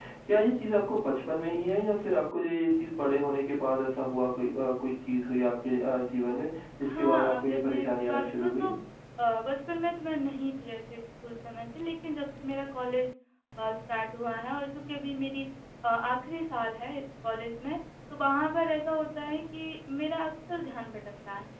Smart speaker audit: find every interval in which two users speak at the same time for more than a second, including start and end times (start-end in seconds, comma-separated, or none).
6.8-8.7